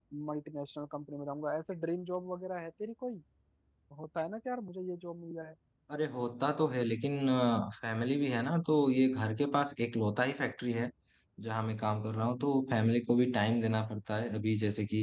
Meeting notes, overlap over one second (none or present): none